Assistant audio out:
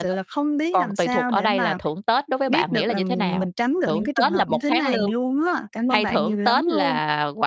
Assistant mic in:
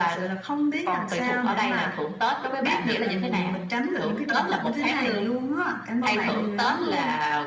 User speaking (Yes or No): No